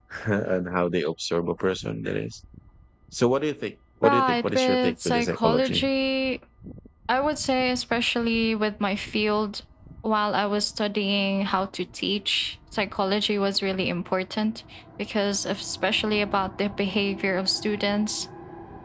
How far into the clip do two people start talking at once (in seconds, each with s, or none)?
4.0 s